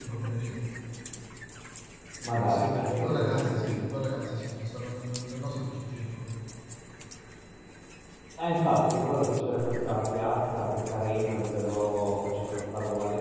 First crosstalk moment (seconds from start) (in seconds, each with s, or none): 2.4 s